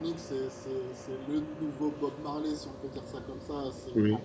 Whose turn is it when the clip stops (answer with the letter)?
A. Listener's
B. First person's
B